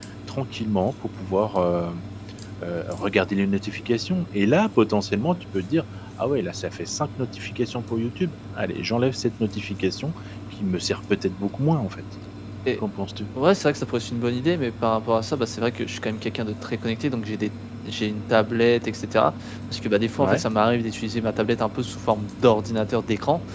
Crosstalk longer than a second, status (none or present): none